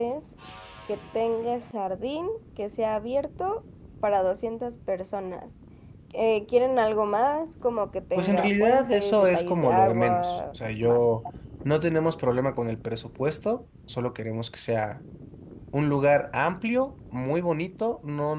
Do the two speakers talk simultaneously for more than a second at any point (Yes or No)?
Yes